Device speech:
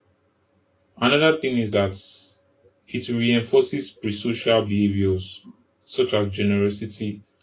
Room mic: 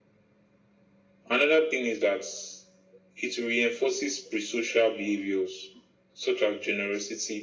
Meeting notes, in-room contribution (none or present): none